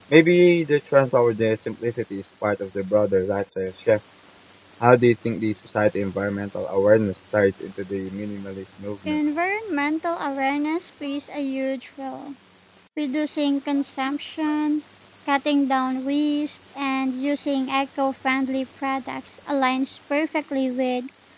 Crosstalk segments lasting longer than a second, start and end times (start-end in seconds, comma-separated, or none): none